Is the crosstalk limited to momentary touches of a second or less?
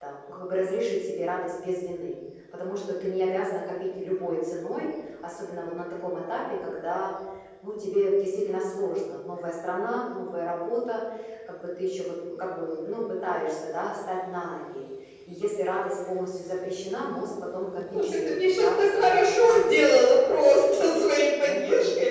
No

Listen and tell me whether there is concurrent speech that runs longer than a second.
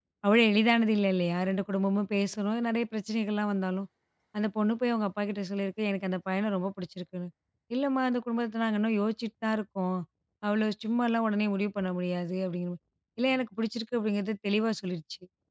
No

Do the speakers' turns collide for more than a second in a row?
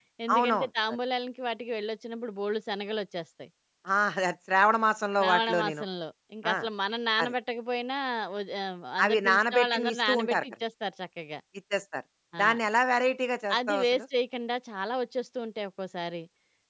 Yes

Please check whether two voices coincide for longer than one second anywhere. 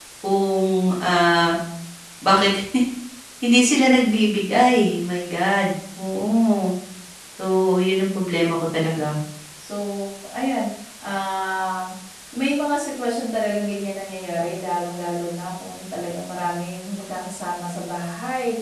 No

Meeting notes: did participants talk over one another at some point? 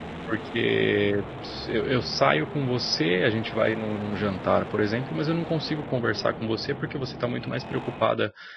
No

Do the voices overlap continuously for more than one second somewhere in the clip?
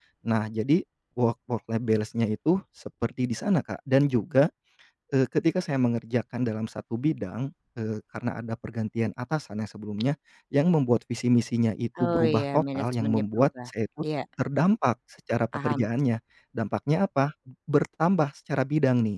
Yes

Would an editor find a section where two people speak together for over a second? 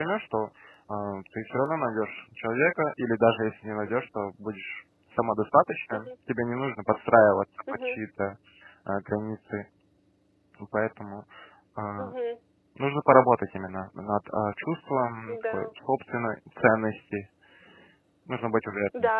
No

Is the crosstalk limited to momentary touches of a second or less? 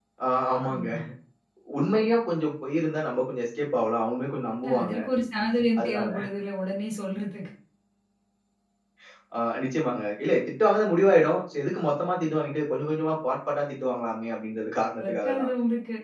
Yes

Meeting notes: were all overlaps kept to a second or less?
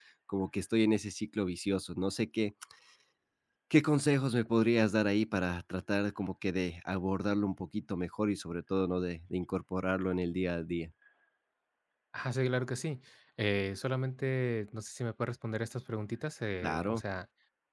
Yes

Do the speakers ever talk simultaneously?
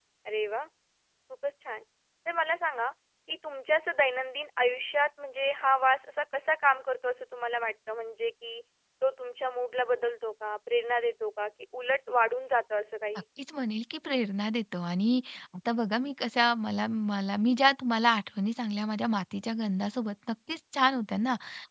No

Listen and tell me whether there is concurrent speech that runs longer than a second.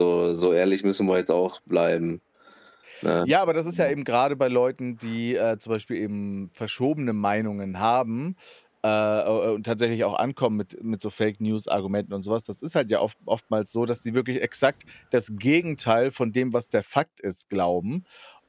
No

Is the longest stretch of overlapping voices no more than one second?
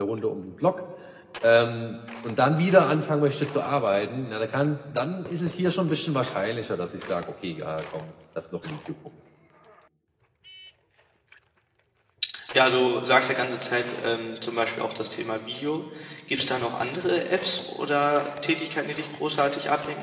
Yes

